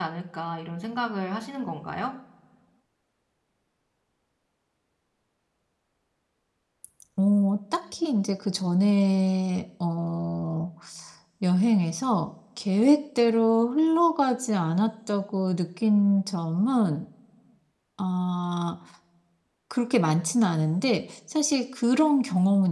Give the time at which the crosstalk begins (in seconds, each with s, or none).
none